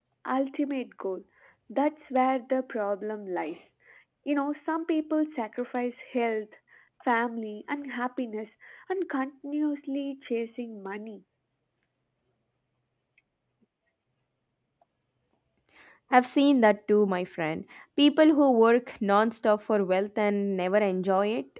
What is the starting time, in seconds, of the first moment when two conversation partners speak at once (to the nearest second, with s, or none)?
none